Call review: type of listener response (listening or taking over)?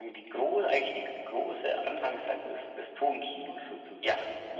taking over